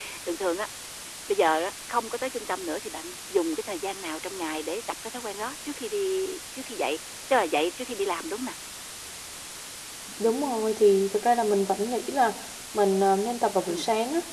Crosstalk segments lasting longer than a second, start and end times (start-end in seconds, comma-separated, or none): none